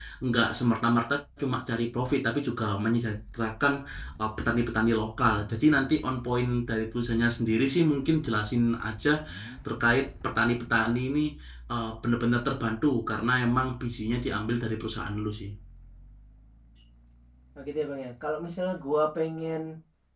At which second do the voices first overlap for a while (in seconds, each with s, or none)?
none